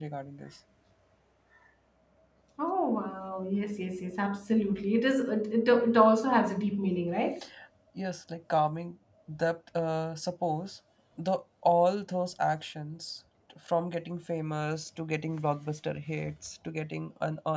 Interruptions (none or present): none